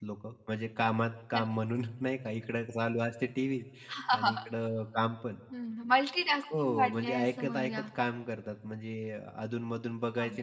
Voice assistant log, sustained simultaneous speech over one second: present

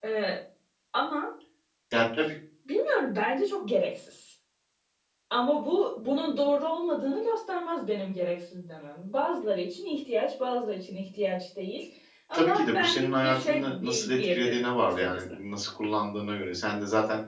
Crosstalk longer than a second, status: present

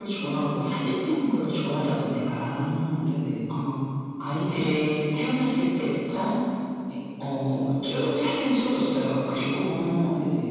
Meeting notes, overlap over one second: none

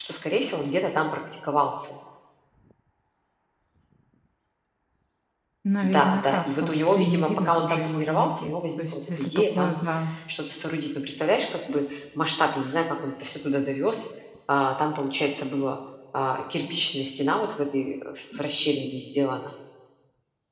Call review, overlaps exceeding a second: present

